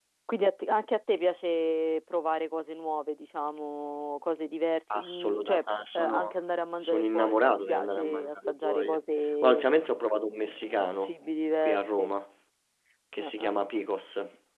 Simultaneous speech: Yes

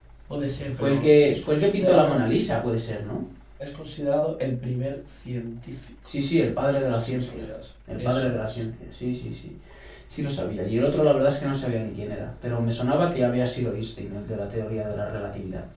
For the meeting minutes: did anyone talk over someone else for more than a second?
Yes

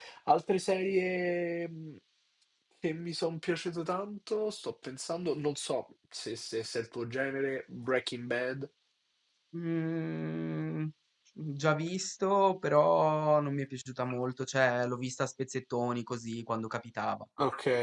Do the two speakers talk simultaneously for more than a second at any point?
No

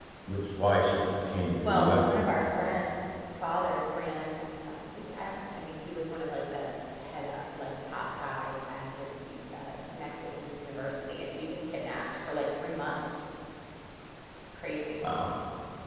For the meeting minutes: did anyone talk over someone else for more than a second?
No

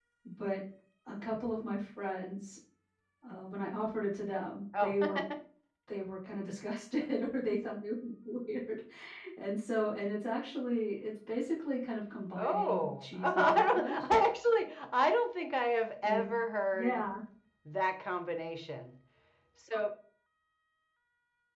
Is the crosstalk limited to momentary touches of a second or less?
No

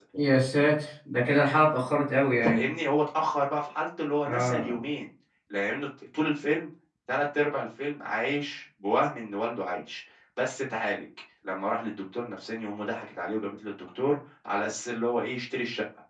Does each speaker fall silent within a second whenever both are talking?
Yes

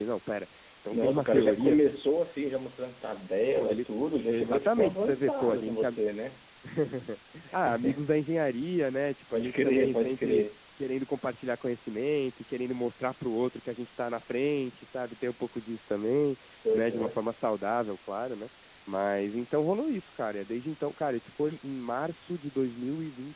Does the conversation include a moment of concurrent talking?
Yes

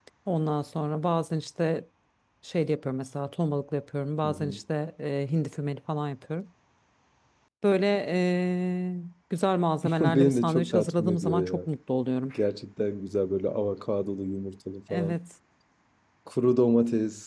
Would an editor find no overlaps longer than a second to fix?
No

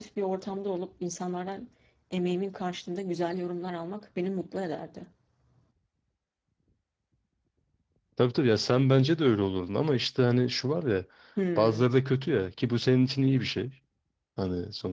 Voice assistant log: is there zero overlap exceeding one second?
Yes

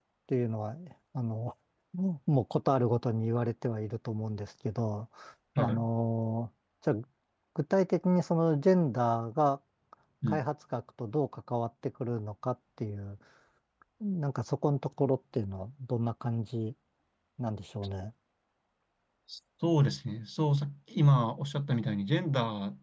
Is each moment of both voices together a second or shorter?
Yes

